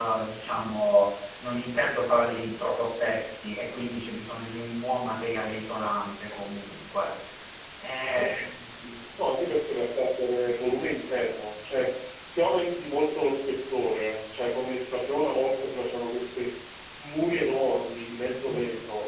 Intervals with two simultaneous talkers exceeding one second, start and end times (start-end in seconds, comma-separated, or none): none